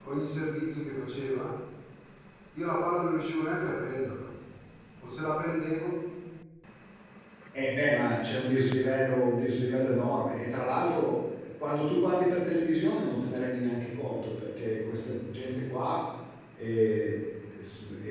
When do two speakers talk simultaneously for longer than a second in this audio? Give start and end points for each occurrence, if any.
none

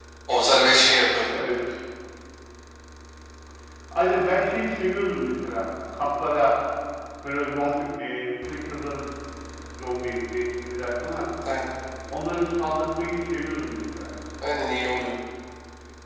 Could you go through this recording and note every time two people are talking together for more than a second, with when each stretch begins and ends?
none

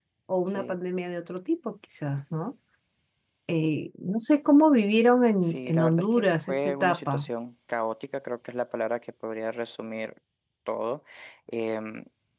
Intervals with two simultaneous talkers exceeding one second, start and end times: 5.4-7.3

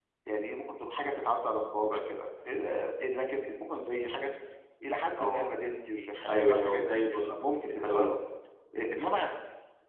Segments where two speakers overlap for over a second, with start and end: 6.3-8.1

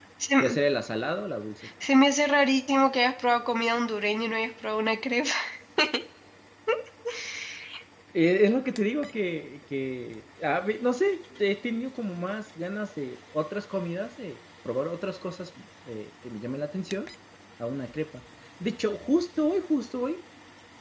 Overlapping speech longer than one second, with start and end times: none

